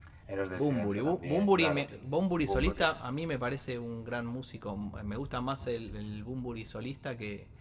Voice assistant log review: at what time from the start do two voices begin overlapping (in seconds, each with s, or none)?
0.5 s